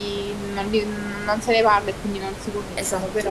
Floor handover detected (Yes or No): Yes